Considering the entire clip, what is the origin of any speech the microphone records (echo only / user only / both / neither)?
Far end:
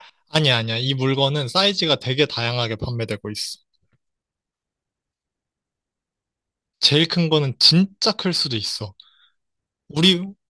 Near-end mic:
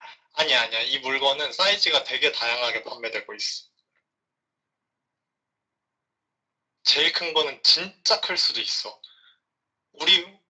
echo only